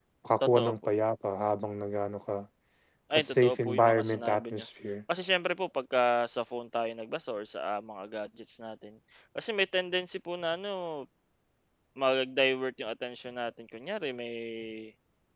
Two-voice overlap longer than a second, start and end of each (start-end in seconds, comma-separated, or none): 3.2-4.7